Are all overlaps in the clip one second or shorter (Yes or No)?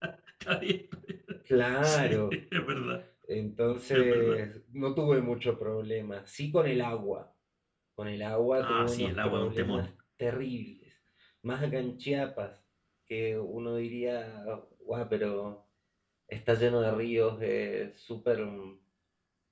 No